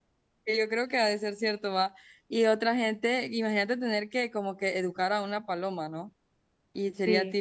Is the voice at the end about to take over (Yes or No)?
No